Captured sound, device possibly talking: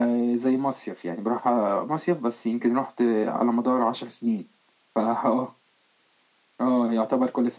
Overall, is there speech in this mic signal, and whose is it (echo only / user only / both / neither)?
echo only